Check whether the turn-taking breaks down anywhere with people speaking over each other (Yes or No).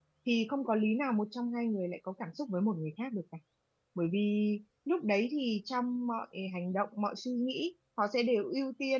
No